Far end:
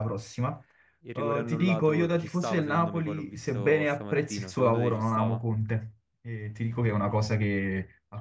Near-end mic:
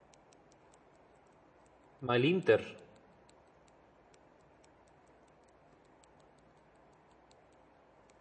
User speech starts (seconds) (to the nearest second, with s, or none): 2 s